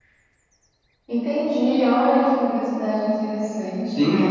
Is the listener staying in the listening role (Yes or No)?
No